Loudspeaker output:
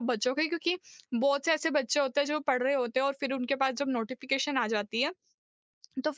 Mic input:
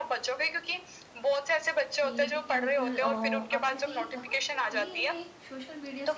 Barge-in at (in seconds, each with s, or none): 1.9 s